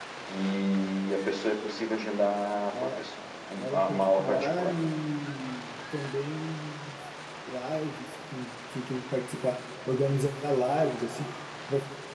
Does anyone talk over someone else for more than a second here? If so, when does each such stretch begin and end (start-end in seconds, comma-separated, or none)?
3.6-4.8